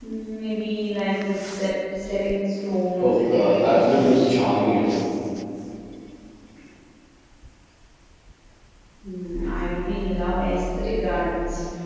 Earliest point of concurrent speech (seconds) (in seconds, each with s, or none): 3.0 s